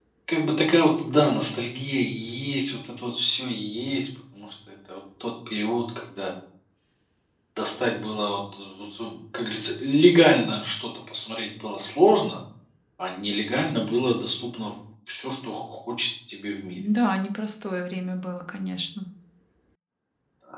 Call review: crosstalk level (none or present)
none